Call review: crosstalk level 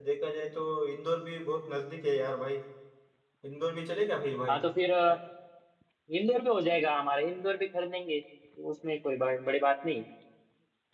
none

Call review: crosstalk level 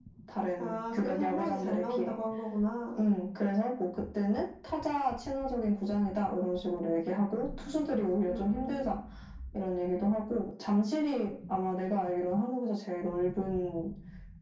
present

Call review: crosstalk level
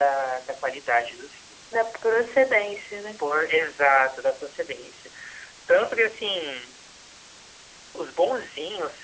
none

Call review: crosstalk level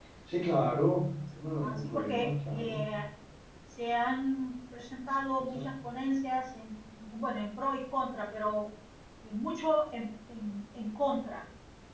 present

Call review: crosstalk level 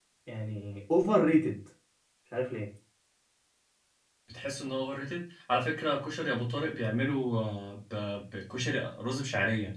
none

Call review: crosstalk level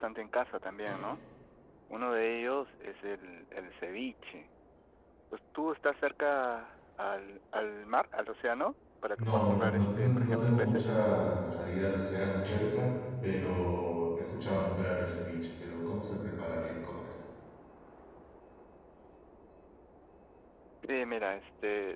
present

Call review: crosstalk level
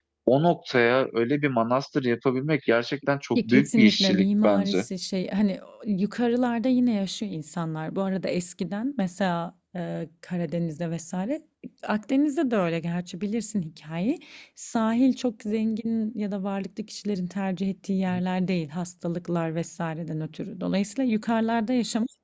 present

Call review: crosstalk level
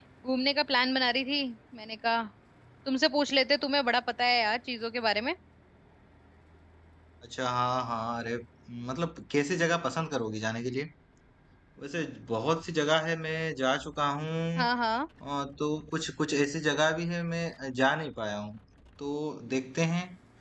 none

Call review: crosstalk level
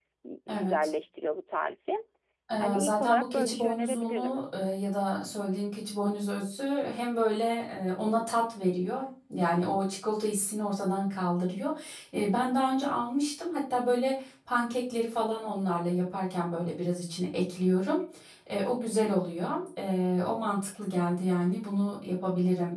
present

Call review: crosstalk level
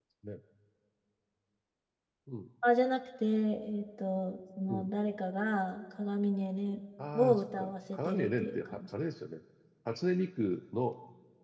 present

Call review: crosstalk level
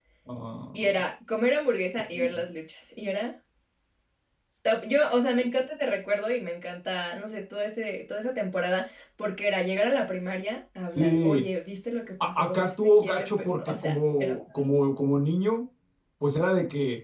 present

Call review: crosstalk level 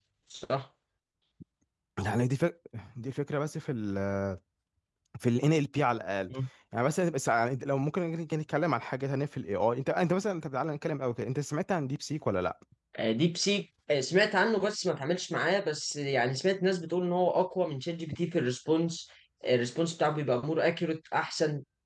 none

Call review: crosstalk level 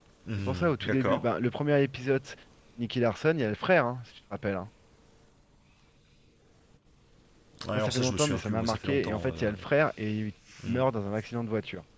present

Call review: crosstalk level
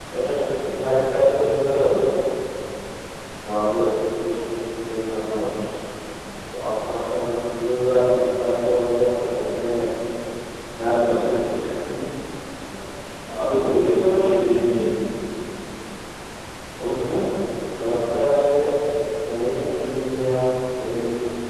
present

